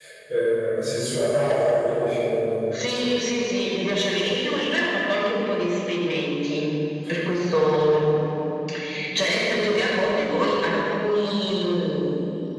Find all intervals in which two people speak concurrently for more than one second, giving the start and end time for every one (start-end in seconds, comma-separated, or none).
none